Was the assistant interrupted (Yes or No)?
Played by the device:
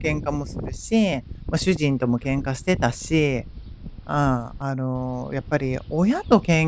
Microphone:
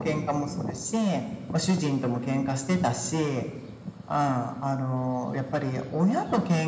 No